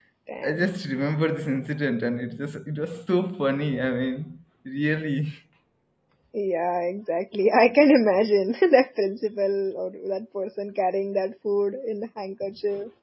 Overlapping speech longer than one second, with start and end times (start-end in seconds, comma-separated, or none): none